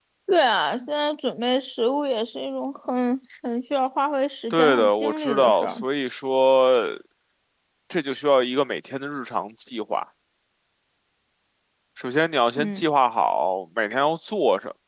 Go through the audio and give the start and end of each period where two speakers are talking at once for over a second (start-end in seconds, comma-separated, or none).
4.5-5.8